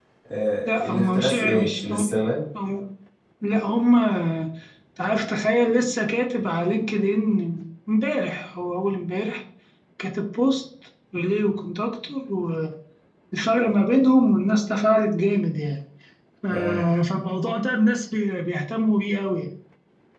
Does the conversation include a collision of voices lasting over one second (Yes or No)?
Yes